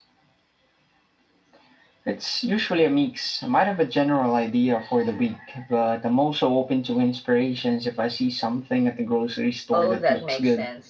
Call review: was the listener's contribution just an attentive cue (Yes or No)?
No